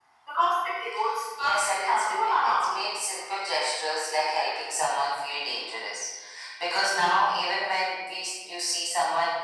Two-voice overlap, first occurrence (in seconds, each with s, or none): 1.4 s